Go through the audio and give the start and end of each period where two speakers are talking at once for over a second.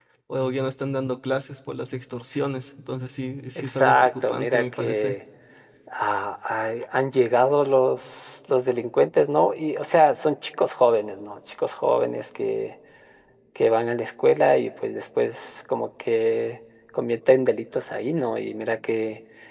3.6-5.2

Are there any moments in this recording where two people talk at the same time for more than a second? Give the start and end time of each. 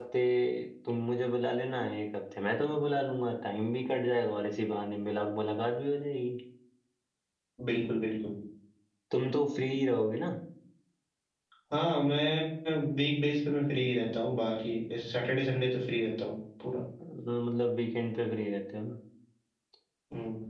none

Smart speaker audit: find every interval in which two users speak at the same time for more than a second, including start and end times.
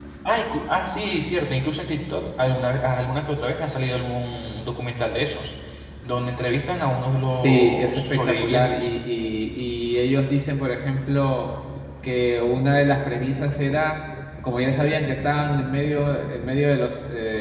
7.3-8.9

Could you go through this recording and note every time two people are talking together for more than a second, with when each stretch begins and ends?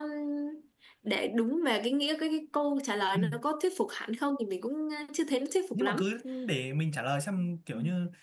none

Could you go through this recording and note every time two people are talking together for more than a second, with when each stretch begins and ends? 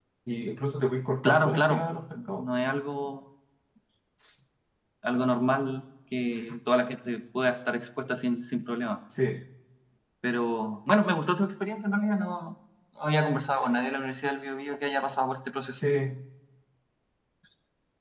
1.2-2.5

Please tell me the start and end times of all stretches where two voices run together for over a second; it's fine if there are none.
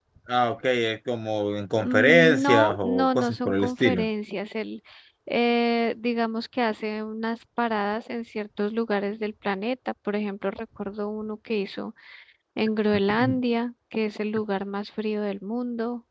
1.8-4.1

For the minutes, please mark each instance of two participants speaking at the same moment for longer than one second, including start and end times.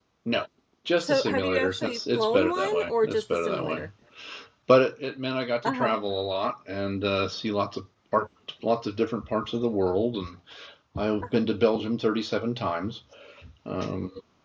1.0-3.8

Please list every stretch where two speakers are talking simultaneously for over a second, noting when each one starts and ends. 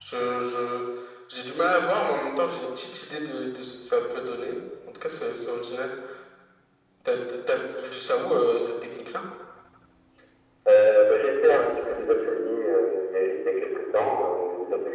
none

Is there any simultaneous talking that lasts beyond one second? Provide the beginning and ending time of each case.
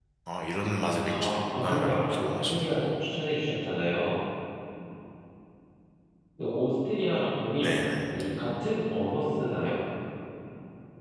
1.1-2.9

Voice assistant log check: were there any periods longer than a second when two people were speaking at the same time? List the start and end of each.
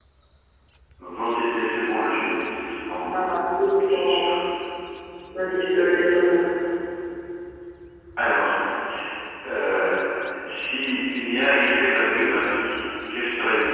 none

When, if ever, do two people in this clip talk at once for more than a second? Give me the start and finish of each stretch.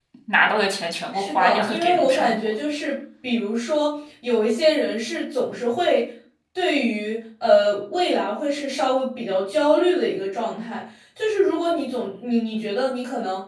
1.1-2.4

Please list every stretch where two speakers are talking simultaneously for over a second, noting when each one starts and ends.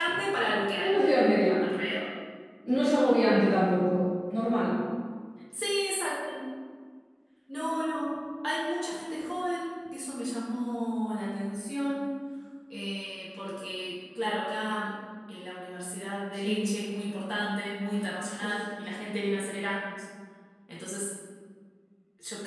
none

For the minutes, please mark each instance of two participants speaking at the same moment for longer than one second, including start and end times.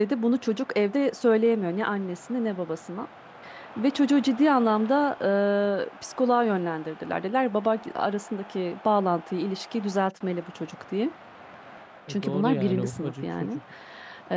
12.1-13.6

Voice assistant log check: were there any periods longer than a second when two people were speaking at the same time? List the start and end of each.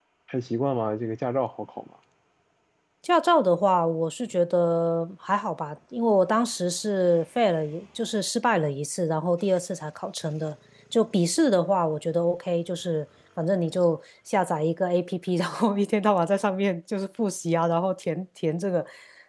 none

